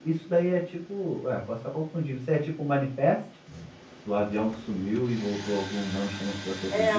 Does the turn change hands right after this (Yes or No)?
Yes